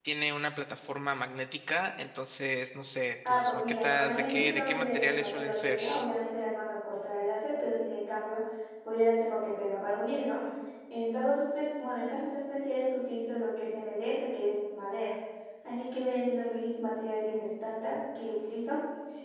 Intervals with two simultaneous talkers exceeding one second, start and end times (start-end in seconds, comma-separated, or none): 3.3-5.8